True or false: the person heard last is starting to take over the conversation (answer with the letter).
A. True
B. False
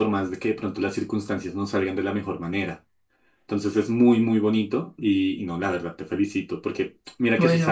B